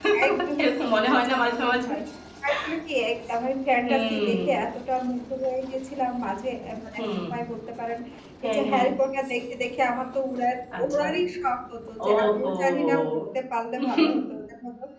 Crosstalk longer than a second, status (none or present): present